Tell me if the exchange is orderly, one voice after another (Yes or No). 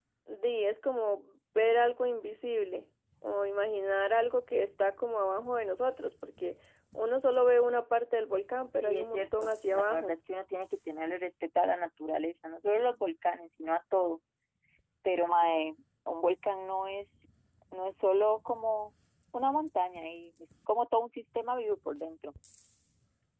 No